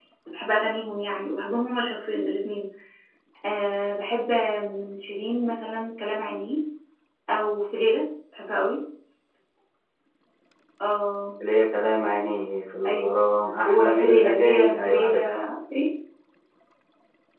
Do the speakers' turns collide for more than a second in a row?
Yes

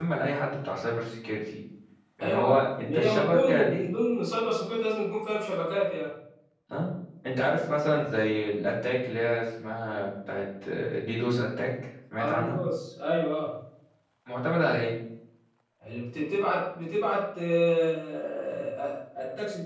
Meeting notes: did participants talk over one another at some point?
Yes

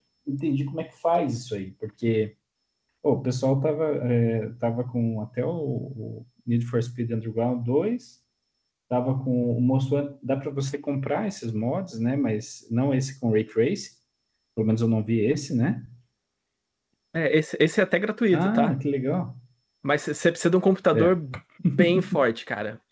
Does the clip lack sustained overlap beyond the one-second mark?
Yes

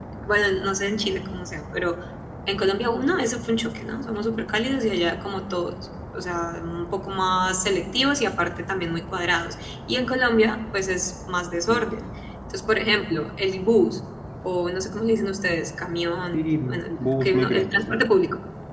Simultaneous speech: Yes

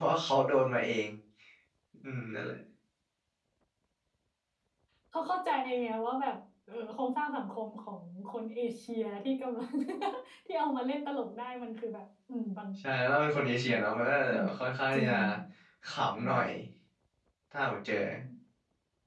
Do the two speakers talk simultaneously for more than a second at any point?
No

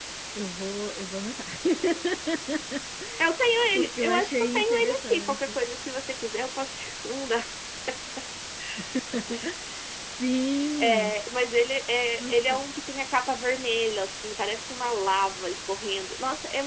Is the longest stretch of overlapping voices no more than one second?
No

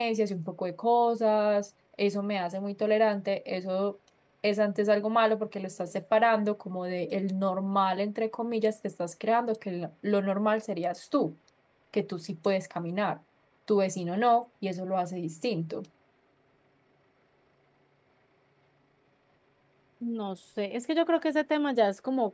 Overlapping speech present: No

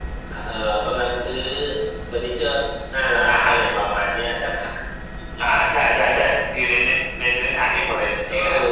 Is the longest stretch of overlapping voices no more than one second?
Yes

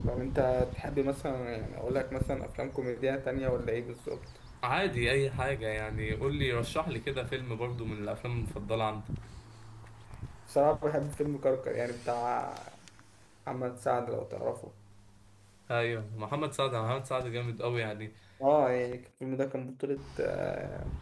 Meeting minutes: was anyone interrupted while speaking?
No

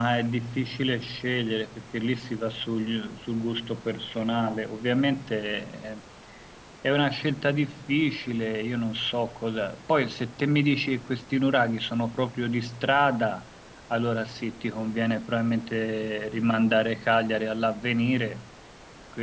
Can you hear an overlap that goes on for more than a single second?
No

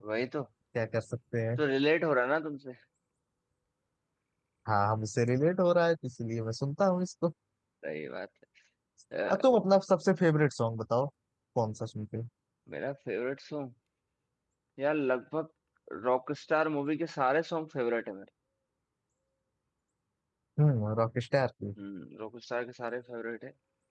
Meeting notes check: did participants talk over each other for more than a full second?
No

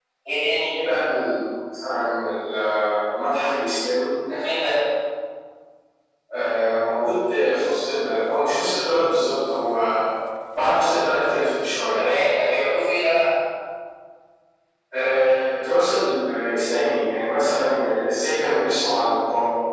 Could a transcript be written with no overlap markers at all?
Yes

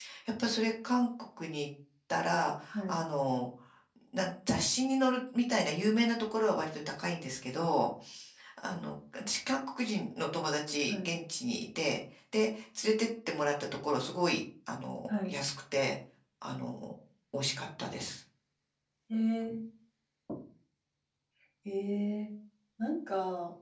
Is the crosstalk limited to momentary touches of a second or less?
Yes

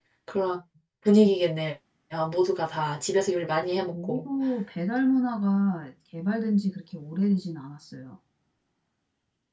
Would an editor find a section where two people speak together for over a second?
No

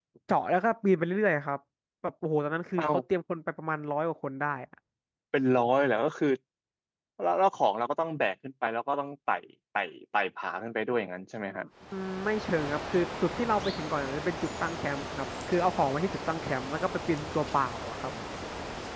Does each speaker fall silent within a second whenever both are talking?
Yes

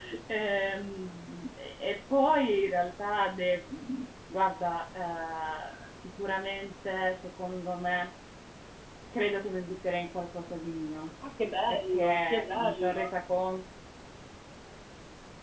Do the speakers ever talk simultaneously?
Yes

